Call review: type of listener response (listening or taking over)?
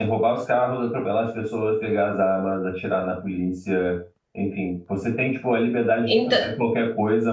listening